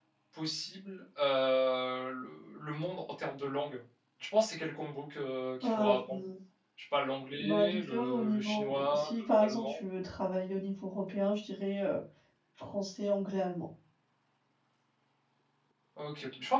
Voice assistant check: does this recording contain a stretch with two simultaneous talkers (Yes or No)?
Yes